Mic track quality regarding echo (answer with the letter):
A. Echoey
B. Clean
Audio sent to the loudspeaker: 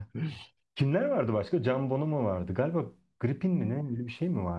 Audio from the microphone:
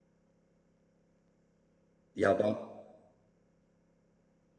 B